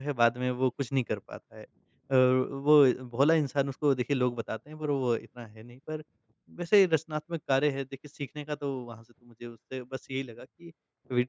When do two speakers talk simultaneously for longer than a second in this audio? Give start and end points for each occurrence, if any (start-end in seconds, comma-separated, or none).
none